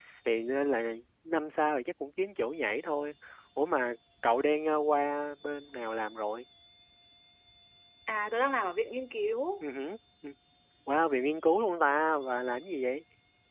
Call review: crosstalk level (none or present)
none